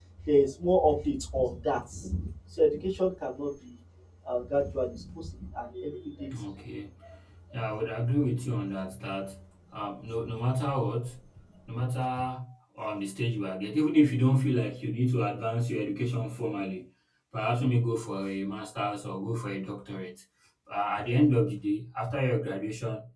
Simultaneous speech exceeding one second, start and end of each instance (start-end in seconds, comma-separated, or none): none